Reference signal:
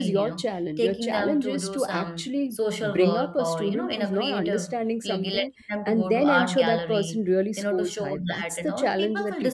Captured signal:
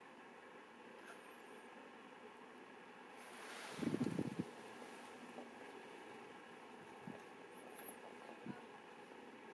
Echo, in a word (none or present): none